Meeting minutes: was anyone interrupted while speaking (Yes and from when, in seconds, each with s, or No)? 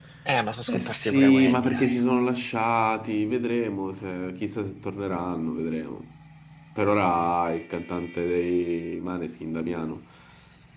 Yes, from 0.7 s